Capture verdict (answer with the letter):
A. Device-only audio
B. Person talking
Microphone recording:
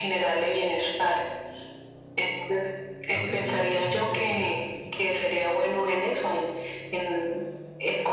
B